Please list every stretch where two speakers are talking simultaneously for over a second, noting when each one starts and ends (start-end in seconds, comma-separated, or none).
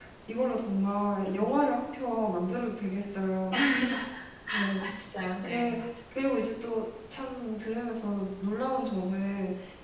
none